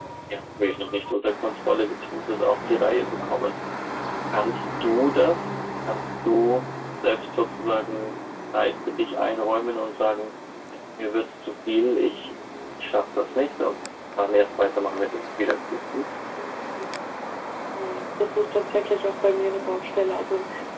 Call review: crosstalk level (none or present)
none